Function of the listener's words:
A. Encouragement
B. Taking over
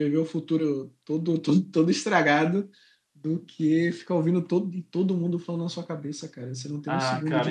B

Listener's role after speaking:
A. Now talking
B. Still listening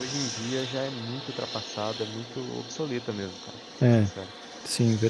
A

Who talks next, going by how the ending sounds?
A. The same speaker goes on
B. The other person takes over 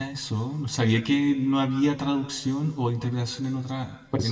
B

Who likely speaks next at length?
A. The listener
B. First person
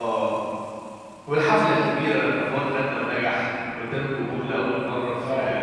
A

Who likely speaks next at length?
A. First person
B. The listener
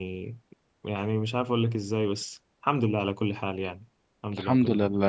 B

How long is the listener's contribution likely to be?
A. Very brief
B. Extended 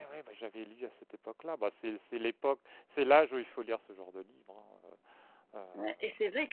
B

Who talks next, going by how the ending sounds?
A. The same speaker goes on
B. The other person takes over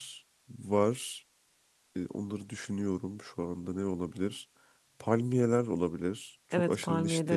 B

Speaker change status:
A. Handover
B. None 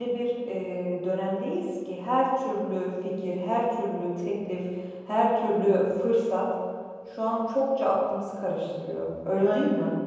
A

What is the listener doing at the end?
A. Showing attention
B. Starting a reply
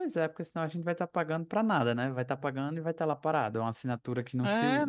B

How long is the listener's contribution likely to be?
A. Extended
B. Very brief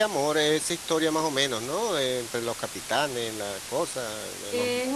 A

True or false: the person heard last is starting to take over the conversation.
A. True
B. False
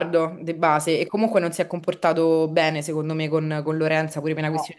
B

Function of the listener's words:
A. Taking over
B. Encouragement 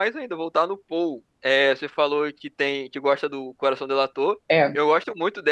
B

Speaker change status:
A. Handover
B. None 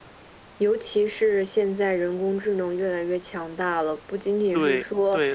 A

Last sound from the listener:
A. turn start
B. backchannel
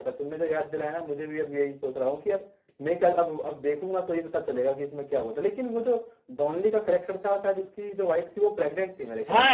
A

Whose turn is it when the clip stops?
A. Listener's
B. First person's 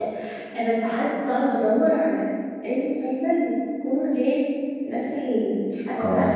A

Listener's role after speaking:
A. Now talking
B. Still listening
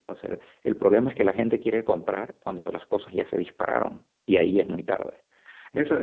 A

